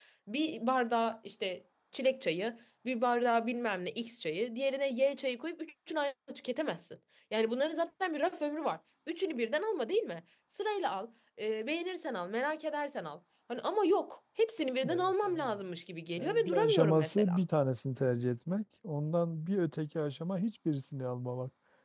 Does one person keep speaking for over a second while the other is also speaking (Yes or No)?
Yes